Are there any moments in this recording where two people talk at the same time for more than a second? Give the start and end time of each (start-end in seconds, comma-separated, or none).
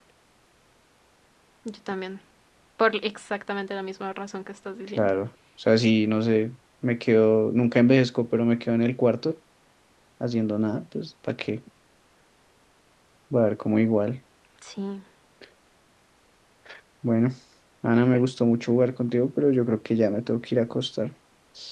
none